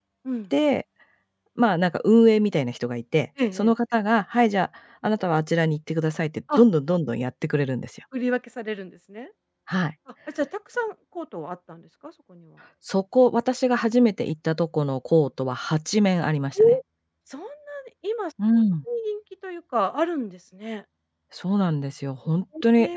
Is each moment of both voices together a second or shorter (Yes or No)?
Yes